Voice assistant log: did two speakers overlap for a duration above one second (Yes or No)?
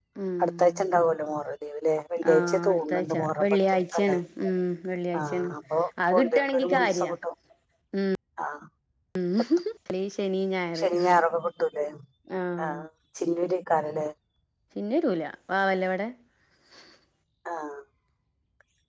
Yes